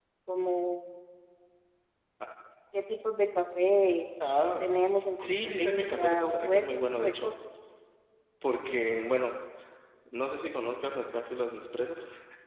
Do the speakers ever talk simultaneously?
Yes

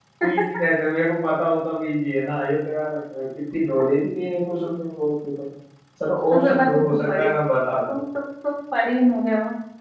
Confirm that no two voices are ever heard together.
No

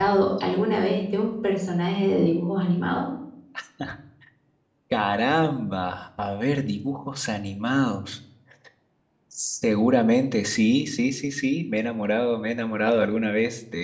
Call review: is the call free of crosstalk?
Yes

